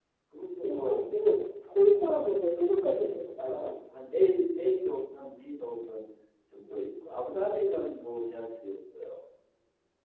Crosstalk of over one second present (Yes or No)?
No